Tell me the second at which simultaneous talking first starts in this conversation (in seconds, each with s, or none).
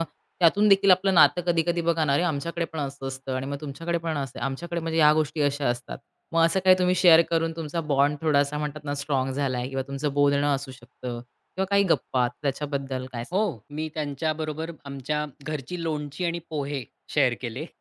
none